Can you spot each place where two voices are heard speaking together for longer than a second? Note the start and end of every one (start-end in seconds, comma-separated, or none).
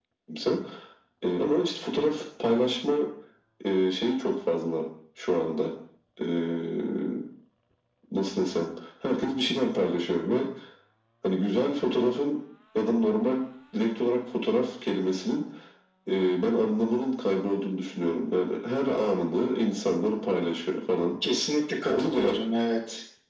none